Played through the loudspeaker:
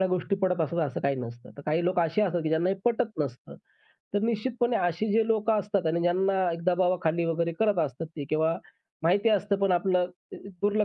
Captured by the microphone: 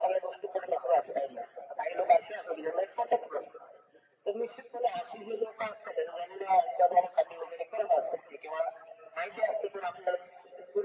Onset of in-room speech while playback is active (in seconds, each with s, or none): none